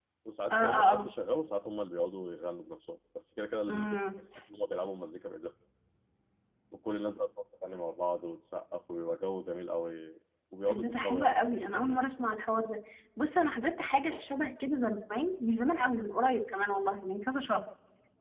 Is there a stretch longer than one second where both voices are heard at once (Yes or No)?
Yes